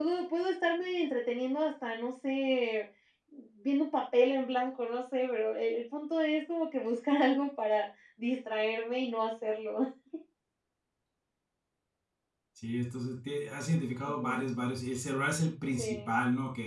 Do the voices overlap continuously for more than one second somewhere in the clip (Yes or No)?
No